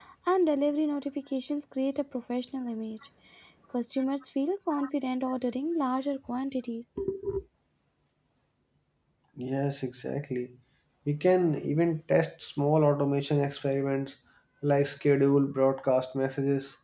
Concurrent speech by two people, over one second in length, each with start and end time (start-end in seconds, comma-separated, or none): none